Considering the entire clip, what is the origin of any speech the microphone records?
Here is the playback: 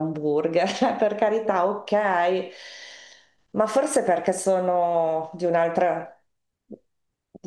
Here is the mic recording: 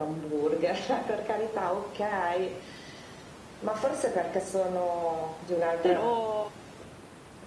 both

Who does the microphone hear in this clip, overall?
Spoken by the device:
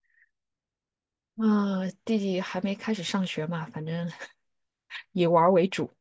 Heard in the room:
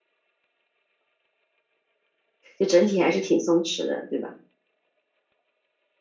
user only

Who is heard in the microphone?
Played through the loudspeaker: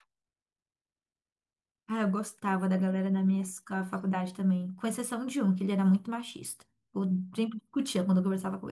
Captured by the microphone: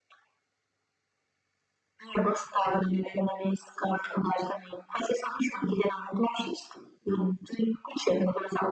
echo only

